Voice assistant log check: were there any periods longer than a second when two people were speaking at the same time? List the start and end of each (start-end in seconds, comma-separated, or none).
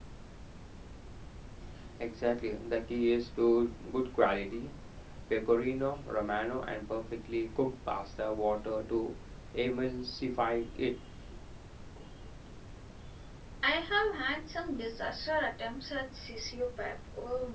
none